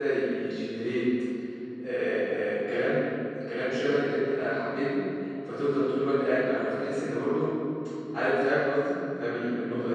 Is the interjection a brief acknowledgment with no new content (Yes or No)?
No